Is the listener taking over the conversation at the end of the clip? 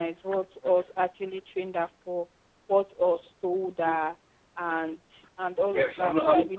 Yes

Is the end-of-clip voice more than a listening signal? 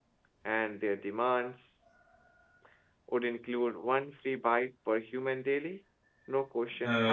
Yes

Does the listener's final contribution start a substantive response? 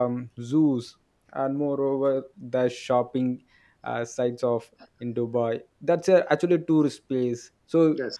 No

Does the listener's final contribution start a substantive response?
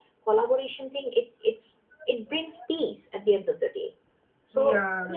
No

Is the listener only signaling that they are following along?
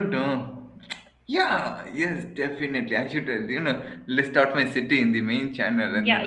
No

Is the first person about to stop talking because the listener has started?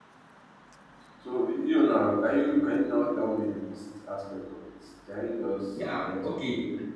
Yes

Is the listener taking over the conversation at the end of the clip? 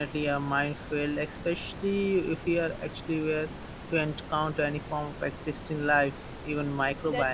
Yes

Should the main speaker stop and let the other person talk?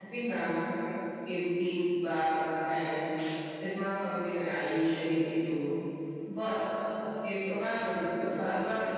No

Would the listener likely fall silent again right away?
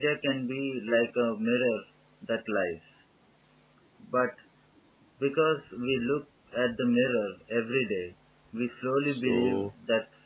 No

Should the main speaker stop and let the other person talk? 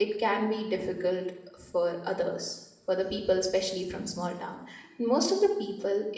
No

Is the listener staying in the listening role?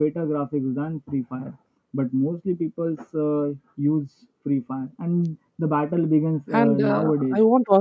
No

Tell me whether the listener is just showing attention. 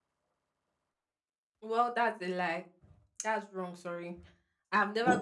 No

